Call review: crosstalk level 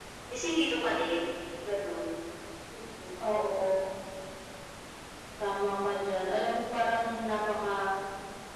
none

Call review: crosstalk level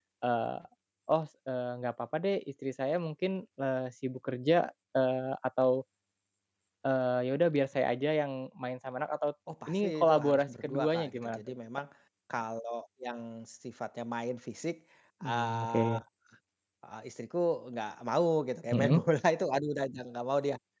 present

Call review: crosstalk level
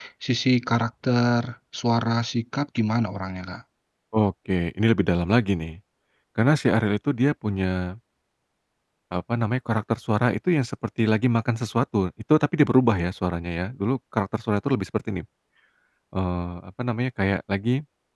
none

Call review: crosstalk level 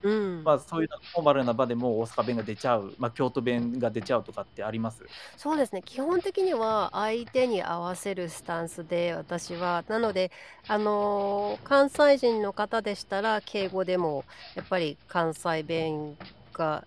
none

